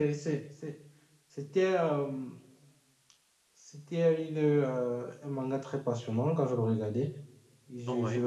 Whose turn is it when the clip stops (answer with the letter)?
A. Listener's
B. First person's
B